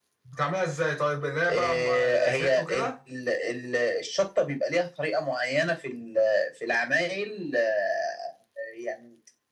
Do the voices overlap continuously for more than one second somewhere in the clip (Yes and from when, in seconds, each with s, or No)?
Yes, from 1.5 s